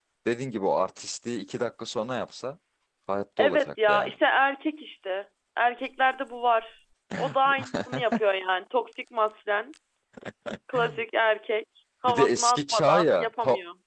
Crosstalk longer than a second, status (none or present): present